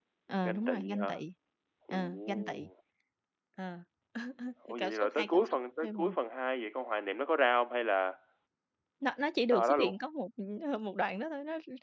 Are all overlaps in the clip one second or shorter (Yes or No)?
No